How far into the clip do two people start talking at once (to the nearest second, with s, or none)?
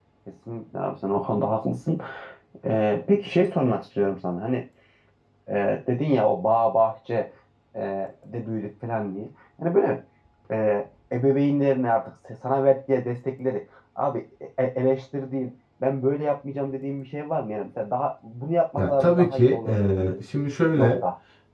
19 s